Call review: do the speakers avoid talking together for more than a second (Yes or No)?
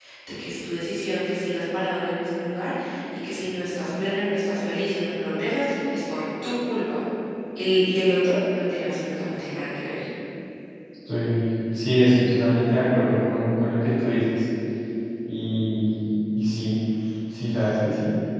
Yes